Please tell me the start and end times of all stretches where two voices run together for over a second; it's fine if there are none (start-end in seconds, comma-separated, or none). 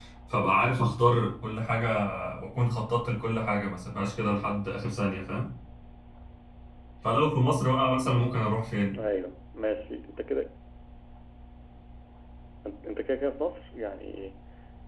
none